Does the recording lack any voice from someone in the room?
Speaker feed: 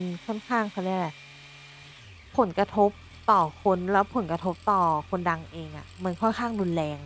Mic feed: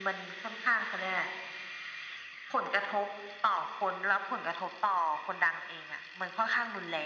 Yes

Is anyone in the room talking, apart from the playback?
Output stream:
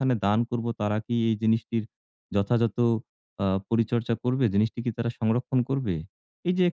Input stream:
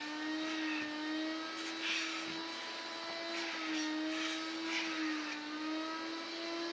No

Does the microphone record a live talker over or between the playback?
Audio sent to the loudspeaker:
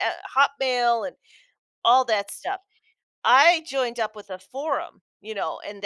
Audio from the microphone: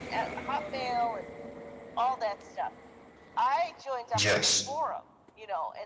Yes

